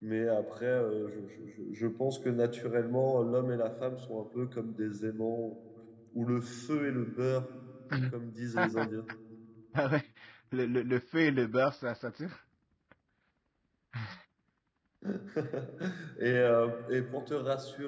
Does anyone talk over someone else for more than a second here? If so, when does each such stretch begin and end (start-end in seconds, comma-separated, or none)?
none